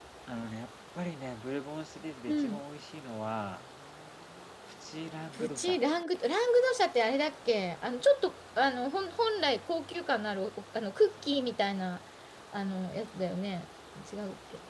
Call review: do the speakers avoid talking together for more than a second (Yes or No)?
Yes